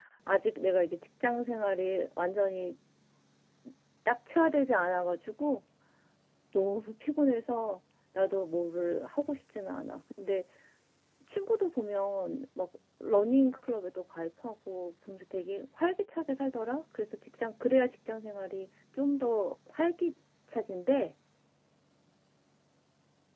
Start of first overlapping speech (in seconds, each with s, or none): none